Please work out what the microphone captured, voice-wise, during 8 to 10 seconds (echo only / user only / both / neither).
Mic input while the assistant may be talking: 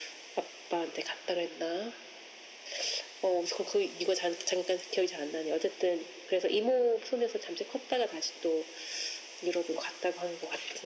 echo only